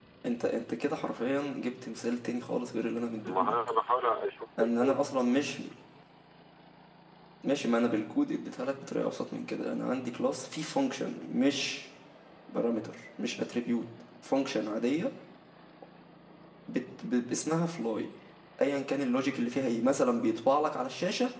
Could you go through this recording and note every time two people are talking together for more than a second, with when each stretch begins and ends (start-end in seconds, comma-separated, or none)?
none